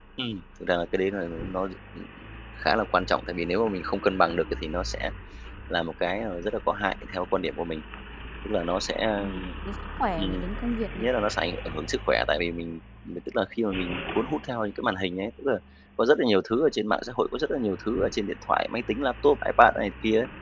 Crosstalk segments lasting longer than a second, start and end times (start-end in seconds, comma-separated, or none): none